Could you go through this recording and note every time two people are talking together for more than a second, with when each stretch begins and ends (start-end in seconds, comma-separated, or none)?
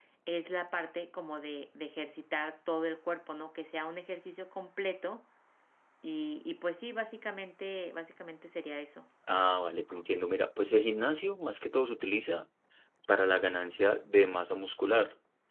none